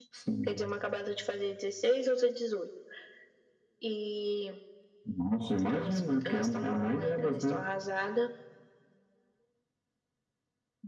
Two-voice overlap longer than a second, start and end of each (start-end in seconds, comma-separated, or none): 5.7-7.6